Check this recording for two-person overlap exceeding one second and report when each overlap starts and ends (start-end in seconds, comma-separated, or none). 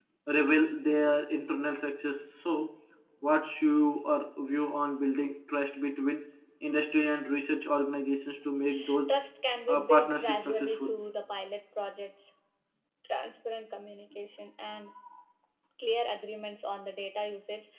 9.7-10.9